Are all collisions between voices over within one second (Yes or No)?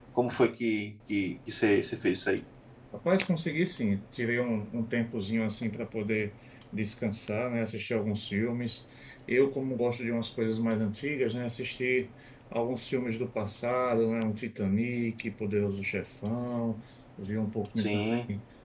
Yes